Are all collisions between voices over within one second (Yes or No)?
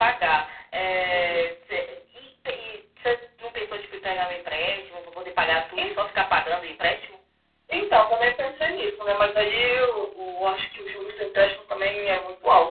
Yes